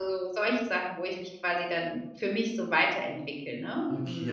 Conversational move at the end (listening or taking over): taking over